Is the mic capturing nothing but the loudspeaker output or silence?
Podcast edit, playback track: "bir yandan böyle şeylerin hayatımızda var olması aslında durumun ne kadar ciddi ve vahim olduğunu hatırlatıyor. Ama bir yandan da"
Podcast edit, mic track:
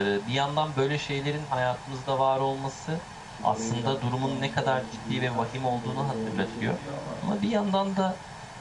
No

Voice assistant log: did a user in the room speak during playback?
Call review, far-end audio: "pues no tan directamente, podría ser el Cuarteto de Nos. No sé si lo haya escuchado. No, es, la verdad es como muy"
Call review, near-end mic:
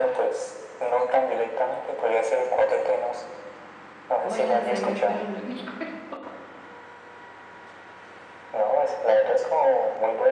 Yes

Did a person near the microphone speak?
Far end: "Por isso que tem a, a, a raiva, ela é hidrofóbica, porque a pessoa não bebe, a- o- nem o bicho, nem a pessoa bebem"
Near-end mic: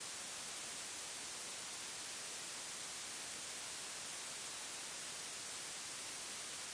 No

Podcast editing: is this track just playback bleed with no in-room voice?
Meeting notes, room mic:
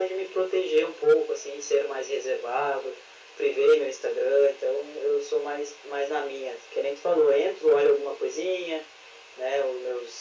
Yes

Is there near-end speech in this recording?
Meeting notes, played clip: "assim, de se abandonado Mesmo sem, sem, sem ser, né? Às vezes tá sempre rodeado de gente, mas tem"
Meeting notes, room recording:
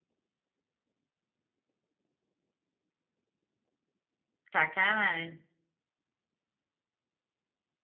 Yes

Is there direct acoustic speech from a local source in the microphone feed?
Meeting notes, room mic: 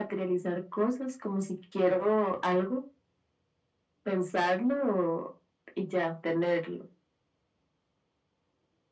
No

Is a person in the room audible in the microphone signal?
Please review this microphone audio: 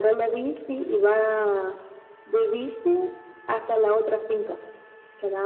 No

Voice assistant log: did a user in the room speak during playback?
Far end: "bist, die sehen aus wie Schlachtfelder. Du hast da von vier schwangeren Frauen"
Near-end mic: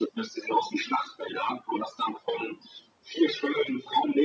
No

